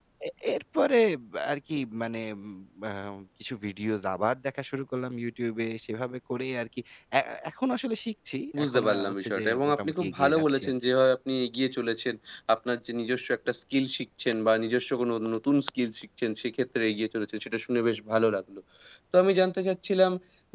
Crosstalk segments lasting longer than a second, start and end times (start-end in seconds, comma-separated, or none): 8.6-10.8